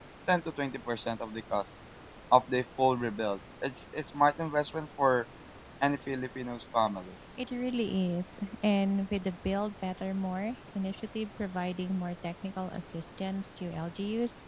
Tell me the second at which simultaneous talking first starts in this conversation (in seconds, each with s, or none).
none